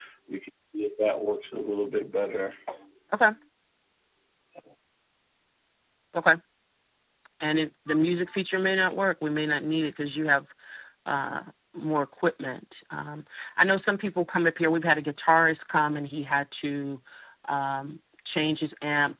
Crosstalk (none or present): none